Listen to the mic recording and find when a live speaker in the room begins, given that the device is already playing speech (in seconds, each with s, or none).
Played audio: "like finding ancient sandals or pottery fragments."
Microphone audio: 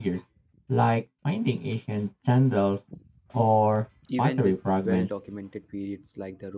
4.1 s